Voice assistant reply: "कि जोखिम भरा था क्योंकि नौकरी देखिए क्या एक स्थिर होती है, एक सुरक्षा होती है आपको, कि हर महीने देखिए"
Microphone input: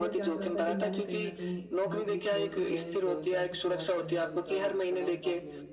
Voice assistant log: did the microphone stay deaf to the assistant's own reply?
No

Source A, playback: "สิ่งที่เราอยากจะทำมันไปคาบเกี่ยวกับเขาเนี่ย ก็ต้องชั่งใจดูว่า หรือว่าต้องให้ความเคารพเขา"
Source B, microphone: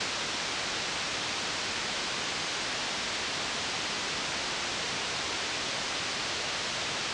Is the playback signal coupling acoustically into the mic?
No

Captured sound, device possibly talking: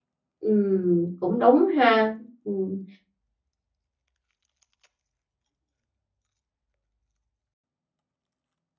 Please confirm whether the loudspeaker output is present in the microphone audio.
No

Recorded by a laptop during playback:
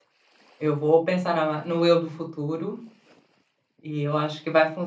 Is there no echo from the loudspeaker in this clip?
Yes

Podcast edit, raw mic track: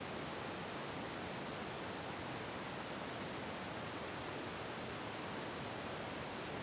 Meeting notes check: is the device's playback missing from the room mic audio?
Yes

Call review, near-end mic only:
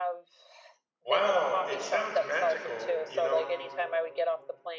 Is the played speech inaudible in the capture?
No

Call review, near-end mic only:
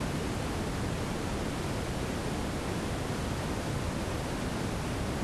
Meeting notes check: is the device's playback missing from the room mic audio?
Yes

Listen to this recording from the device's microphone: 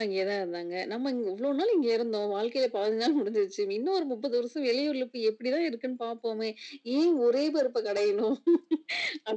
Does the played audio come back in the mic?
Yes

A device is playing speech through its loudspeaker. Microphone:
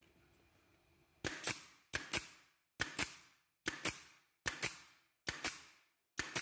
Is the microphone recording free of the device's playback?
Yes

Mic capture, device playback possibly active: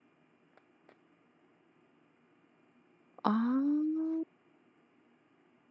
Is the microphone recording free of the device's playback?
Yes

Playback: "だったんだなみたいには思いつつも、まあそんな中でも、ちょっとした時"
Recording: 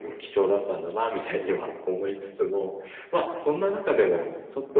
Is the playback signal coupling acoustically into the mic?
Yes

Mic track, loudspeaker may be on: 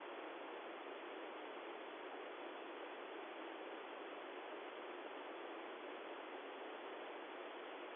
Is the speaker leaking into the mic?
No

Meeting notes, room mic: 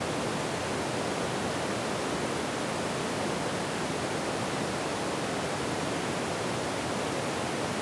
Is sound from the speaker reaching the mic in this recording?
No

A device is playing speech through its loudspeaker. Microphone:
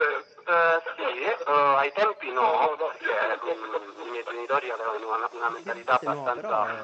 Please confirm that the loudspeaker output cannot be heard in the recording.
No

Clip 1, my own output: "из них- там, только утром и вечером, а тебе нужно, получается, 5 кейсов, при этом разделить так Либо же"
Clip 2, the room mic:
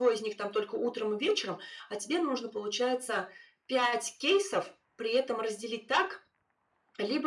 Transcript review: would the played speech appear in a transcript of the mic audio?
Yes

